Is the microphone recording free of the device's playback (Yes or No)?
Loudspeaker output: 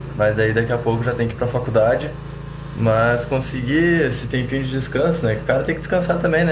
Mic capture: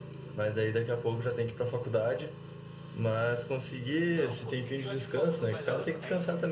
No